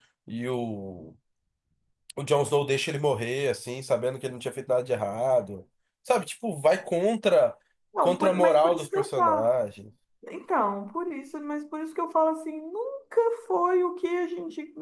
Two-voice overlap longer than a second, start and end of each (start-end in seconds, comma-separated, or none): 8.0-9.5